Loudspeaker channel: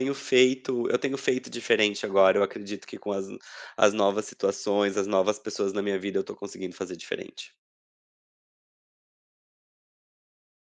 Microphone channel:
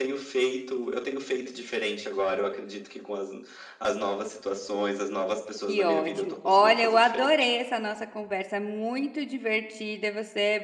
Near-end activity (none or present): present